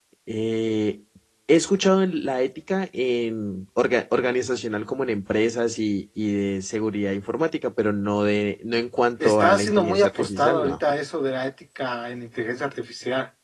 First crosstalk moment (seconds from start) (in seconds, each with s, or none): 9.2 s